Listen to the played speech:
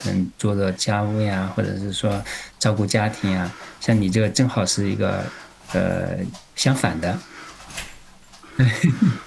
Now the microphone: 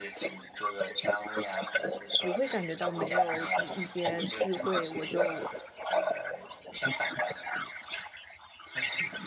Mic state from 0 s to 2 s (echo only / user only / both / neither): echo only